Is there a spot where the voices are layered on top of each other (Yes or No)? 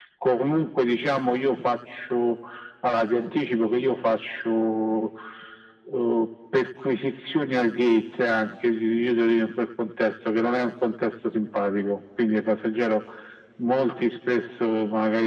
No